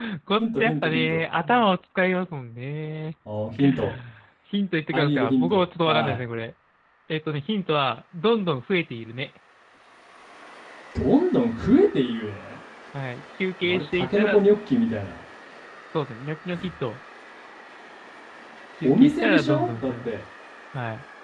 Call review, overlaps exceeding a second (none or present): present